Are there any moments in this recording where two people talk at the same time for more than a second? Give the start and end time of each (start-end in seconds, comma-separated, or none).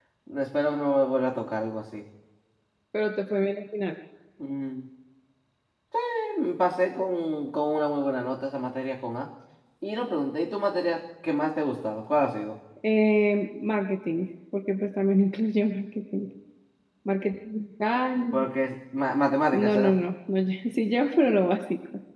none